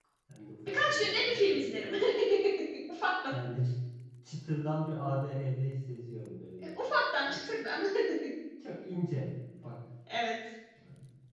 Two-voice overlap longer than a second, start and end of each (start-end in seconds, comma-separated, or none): 0.7-1.9